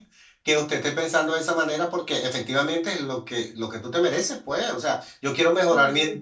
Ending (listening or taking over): listening